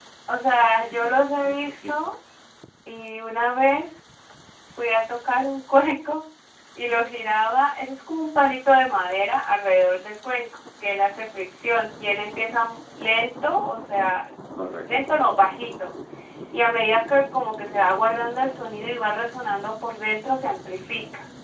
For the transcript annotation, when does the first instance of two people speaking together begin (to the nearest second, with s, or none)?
1 s